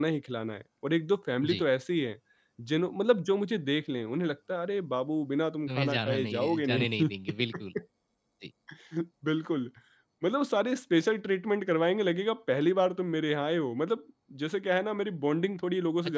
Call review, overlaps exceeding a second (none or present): present